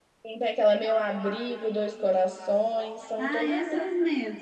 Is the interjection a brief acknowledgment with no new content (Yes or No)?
No